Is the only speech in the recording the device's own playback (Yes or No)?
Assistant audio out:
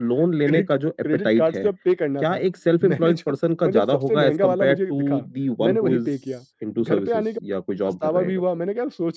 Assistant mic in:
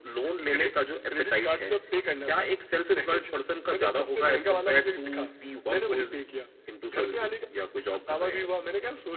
Yes